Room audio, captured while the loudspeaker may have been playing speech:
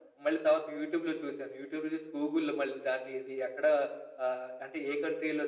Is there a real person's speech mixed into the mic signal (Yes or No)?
No